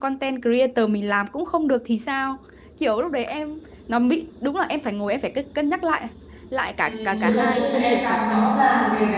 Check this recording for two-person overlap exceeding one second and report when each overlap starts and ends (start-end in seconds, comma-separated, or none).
6.8-8.2